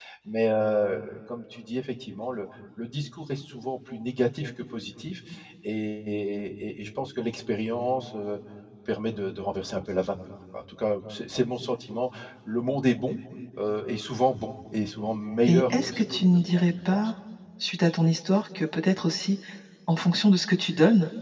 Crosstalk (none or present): present